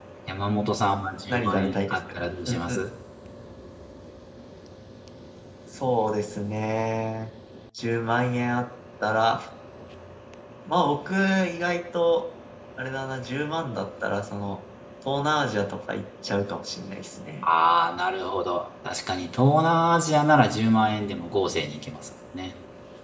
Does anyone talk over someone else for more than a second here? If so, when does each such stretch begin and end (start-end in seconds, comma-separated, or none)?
1.3-2.8